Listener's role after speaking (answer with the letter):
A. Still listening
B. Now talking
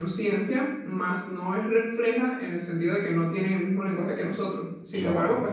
A